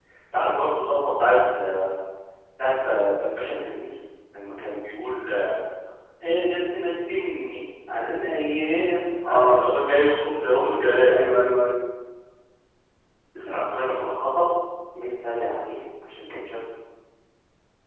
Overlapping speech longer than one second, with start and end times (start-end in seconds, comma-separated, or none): none